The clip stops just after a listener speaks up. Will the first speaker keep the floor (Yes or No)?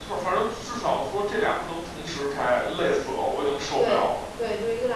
No